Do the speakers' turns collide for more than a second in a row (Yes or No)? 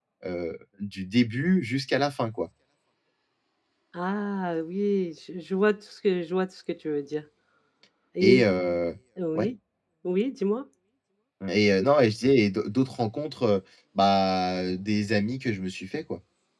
No